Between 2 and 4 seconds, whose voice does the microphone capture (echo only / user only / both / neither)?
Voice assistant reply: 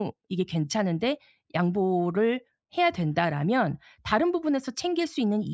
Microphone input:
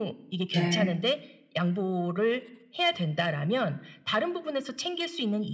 echo only